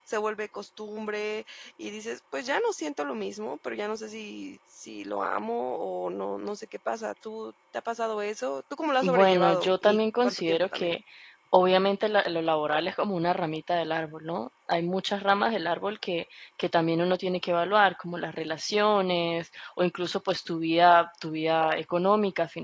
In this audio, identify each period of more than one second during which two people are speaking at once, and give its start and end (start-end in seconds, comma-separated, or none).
9.0-10.9